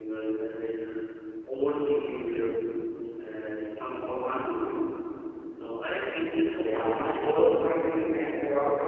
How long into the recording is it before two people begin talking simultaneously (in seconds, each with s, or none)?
6.5 s